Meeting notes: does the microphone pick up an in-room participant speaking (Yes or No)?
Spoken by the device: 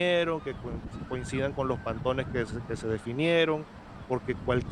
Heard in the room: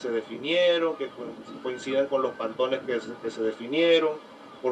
No